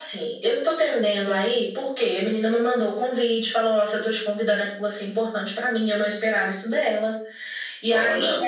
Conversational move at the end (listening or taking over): listening